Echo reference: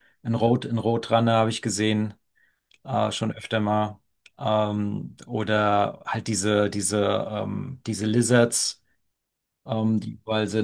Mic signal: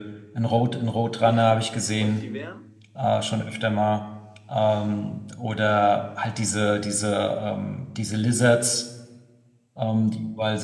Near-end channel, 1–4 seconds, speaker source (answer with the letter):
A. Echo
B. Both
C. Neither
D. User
B